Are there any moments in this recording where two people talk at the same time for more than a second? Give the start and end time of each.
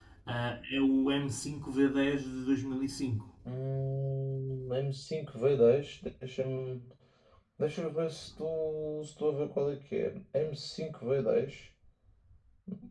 none

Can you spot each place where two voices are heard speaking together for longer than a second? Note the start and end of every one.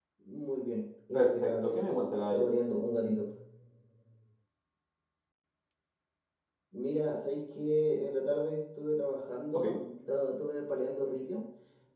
1.1-2.5

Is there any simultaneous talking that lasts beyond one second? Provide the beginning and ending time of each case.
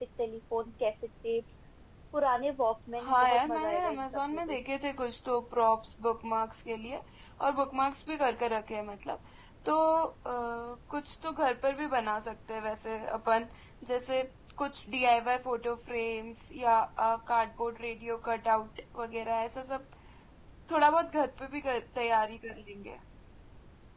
3.0-4.6

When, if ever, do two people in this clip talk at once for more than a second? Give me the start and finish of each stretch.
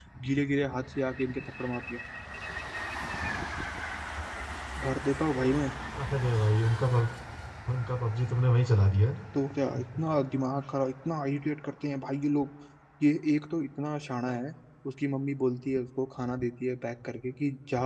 none

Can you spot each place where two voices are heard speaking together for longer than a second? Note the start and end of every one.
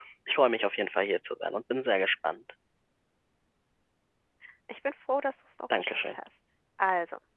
none

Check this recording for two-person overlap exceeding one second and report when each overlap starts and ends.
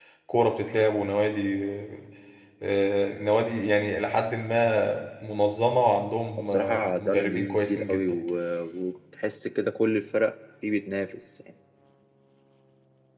6.5-8.0

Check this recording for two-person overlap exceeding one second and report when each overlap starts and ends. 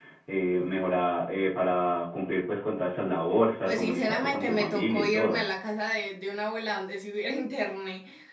3.7-5.4

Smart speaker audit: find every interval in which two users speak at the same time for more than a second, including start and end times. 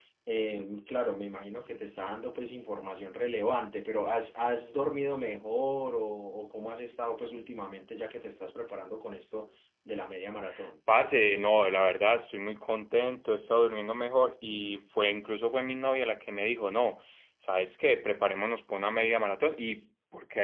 none

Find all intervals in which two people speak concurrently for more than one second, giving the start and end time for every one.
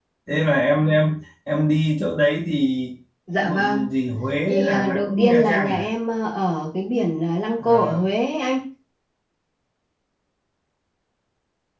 4.5-5.9

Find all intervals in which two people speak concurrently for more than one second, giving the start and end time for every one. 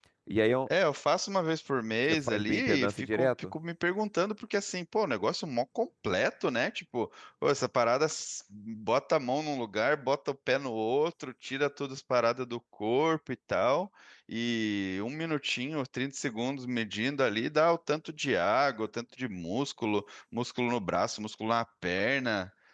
2.3-3.5

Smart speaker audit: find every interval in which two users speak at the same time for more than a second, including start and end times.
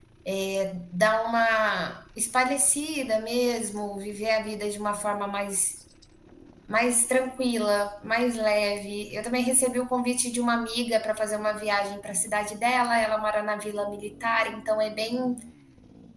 none

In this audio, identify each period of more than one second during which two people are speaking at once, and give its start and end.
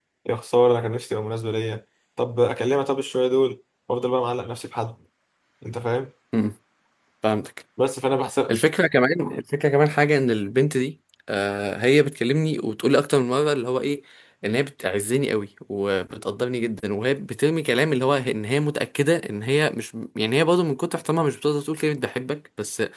none

